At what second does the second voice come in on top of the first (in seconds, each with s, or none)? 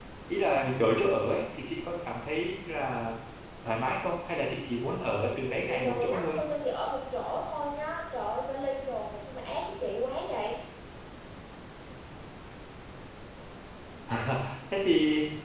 5.0 s